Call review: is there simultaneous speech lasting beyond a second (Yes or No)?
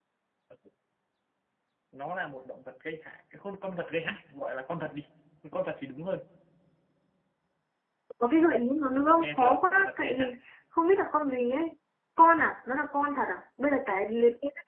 Yes